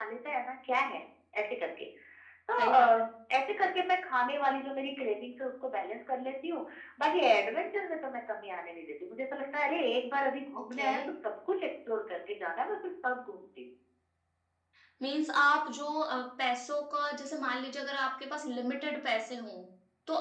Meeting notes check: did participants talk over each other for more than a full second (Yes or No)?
No